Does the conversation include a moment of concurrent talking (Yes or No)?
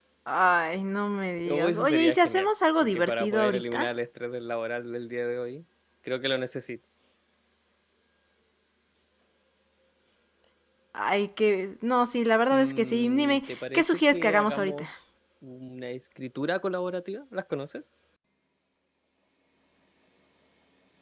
Yes